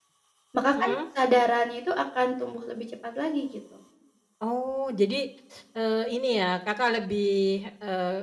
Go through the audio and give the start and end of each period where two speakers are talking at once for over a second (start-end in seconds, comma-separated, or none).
none